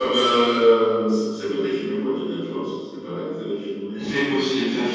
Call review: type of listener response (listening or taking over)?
taking over